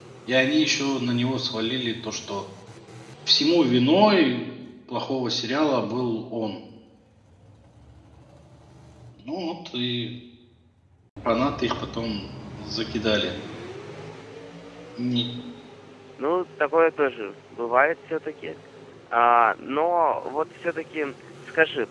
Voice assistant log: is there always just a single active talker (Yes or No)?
Yes